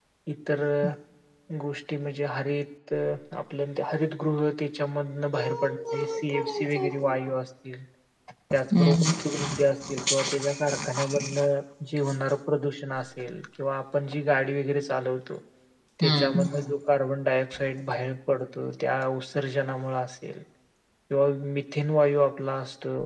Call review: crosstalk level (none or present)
present